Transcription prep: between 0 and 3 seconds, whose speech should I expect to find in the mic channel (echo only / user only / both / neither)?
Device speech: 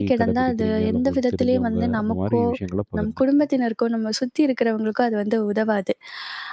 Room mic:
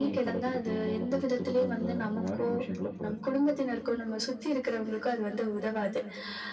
echo only